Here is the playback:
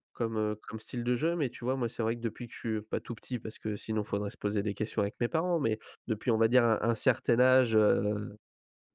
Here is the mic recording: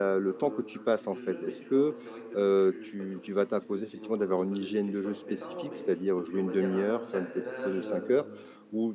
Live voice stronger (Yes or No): Yes